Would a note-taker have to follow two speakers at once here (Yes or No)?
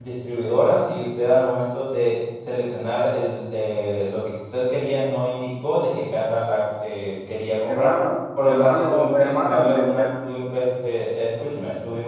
Yes